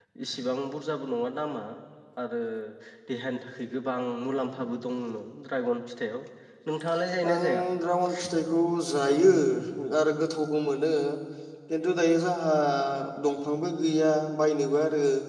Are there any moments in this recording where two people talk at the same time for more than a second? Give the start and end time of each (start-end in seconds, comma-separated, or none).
none